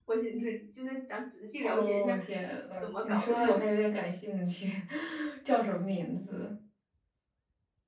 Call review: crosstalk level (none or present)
present